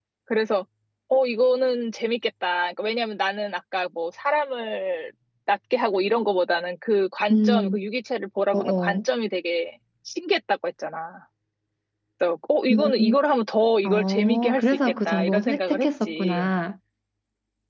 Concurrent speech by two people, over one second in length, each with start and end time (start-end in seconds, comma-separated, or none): 13.8-16.5